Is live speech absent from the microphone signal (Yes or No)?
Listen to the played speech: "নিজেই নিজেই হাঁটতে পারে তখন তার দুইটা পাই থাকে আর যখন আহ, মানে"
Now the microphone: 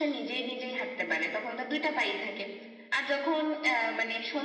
Yes